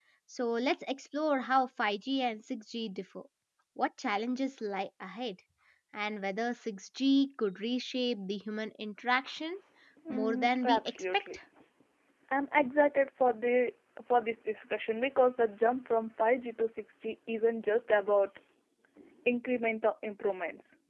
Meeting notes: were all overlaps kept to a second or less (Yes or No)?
No